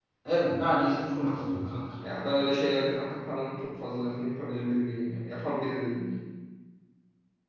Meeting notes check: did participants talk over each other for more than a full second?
No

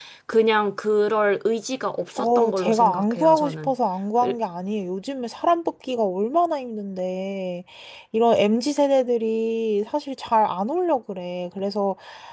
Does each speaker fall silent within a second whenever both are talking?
No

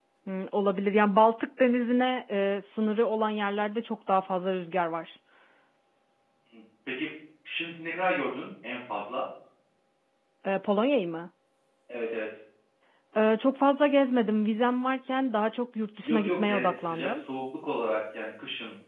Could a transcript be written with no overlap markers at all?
No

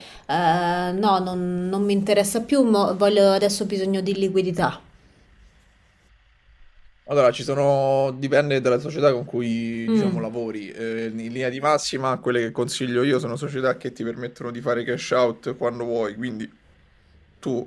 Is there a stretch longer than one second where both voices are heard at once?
No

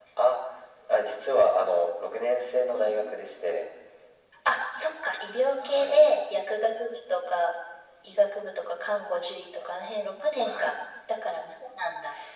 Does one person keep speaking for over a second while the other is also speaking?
No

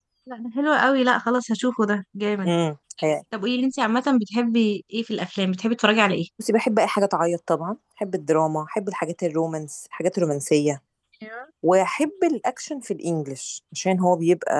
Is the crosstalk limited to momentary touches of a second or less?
Yes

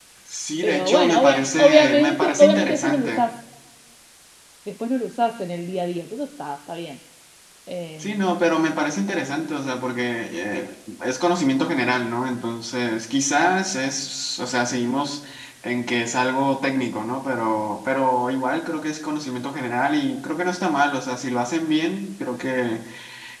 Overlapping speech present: Yes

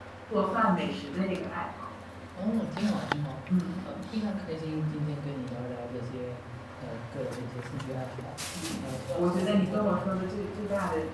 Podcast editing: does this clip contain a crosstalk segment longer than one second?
Yes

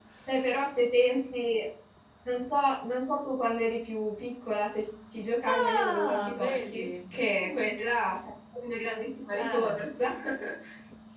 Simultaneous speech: Yes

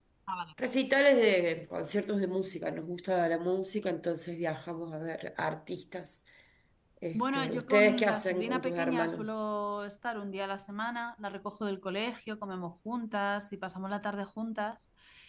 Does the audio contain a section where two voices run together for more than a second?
Yes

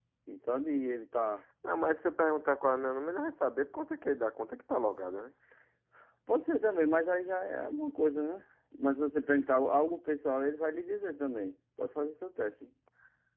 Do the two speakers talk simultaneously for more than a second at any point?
No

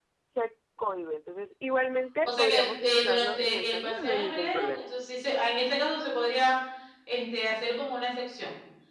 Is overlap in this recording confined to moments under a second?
No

